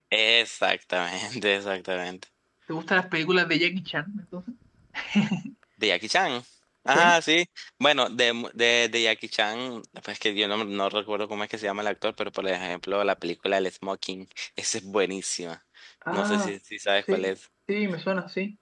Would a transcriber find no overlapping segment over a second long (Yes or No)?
Yes